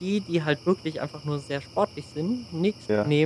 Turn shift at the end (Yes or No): No